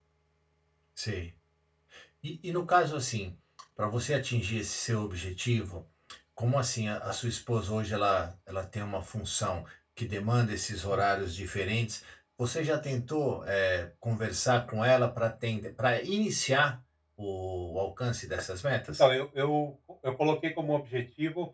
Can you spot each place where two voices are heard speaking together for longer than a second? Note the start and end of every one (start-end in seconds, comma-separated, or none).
none